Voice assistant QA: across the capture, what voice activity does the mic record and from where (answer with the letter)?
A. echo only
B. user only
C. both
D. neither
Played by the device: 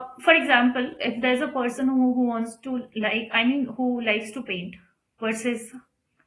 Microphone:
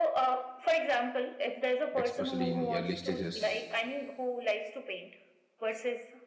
C